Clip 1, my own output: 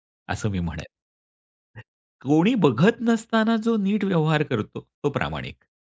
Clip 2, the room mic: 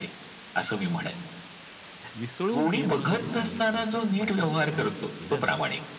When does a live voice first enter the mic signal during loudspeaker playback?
2.2 s

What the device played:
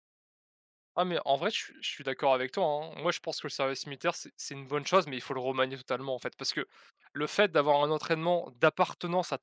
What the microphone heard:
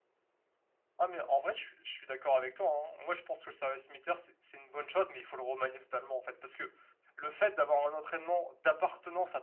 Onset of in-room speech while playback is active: none

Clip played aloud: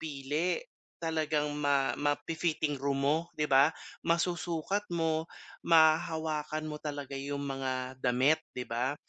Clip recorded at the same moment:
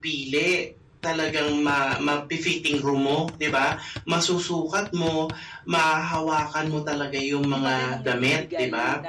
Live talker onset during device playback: 7.5 s

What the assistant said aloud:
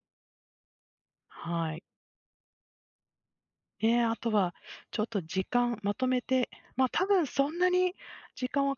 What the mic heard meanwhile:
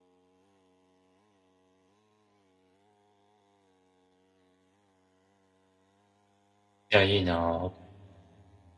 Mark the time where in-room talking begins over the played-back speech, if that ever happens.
6.9 s

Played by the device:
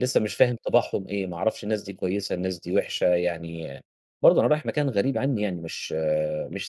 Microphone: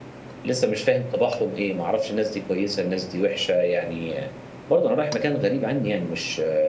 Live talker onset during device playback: none

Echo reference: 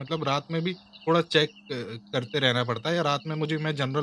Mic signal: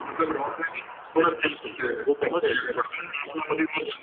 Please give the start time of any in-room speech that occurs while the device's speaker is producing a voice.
1.4 s

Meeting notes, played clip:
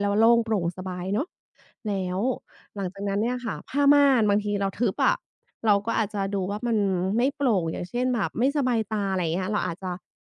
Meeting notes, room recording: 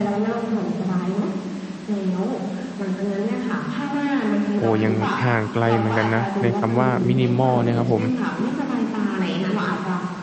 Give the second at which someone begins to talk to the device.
4.5 s

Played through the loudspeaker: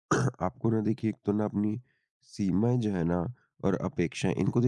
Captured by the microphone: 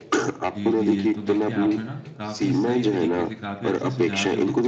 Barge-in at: 0.6 s

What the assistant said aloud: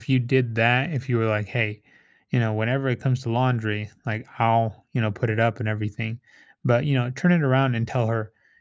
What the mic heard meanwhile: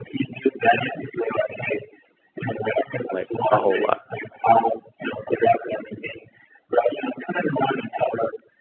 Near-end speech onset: 3.1 s

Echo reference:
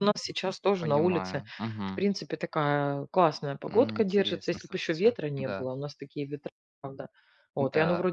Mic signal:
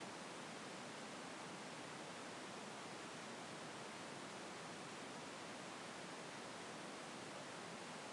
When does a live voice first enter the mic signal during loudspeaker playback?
none

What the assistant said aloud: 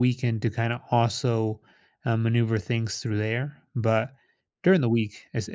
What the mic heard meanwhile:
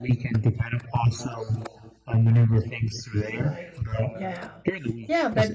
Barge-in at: 3.3 s

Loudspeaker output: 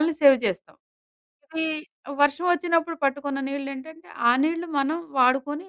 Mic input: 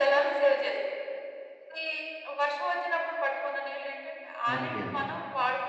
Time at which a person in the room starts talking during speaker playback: 4.5 s

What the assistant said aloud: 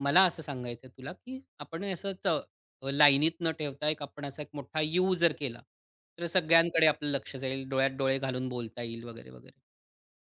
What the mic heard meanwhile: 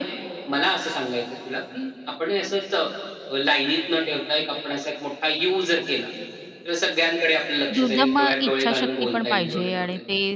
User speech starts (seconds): 7.8 s

